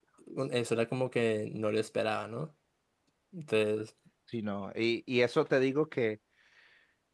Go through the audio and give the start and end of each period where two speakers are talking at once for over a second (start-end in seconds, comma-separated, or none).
none